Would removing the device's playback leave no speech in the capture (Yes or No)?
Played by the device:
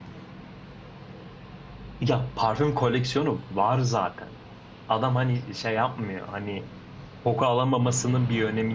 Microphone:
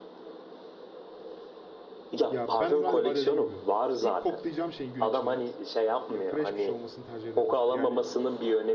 No